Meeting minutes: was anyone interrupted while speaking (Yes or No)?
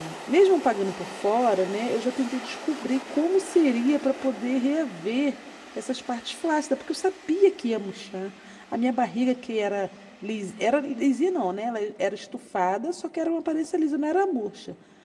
No